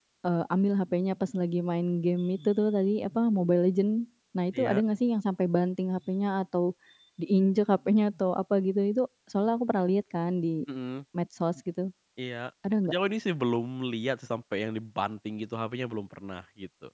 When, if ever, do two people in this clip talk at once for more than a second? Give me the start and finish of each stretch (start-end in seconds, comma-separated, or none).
none